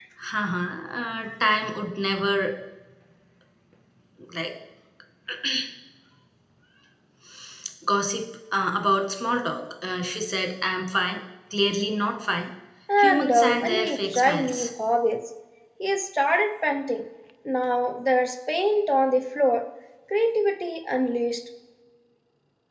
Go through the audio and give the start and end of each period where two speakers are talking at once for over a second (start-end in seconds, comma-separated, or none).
13.0-14.7